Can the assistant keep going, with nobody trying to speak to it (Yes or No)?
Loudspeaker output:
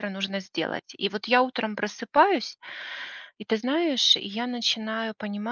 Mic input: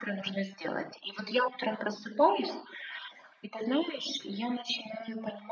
Yes